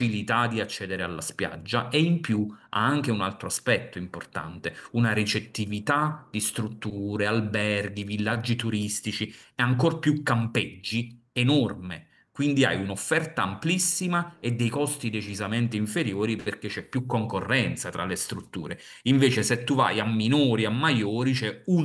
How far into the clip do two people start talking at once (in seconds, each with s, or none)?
none